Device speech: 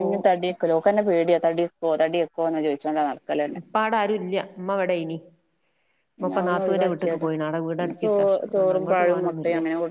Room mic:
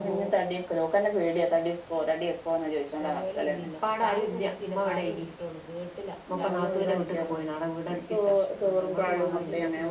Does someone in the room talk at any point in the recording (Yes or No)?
Yes